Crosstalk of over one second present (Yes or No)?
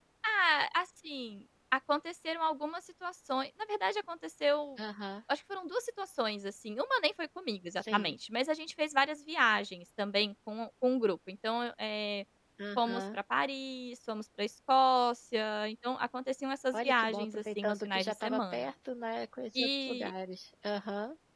Yes